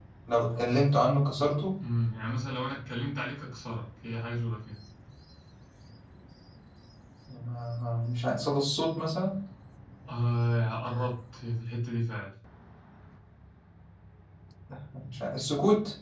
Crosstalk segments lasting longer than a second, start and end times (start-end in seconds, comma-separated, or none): none